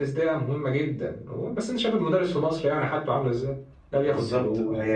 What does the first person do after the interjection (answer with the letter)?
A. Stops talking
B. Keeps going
A